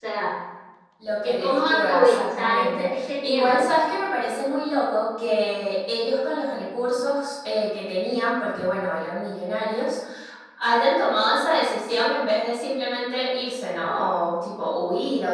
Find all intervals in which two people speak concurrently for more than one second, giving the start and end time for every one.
1.2-3.7

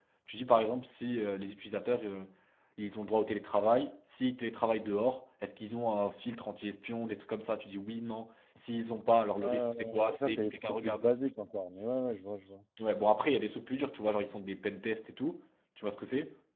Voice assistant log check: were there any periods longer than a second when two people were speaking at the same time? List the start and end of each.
9.4-11.0

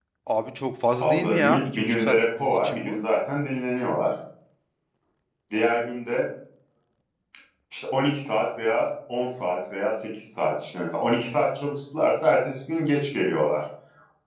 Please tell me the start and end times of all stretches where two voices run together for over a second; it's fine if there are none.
1.0-3.0

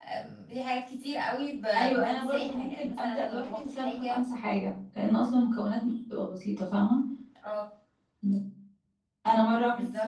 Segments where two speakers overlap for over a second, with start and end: 2.0-4.2

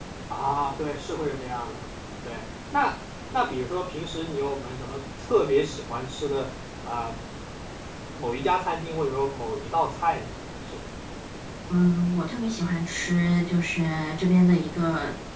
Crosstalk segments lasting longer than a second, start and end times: none

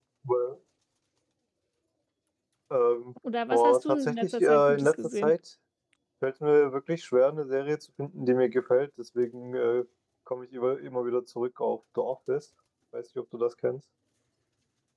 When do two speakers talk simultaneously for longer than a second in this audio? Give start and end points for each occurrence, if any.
3.5-5.3

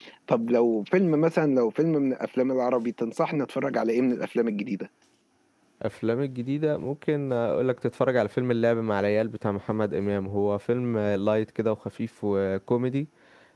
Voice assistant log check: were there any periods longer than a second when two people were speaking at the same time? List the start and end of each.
none

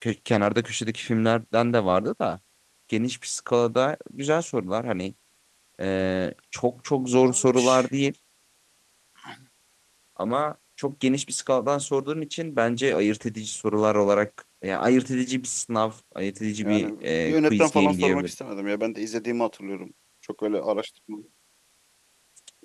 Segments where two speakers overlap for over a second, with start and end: 16.6-18.3

